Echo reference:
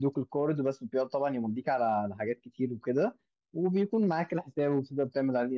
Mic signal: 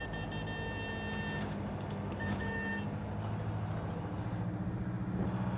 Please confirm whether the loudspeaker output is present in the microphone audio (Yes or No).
No